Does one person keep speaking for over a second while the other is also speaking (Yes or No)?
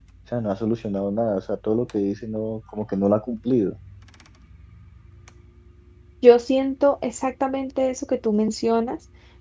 No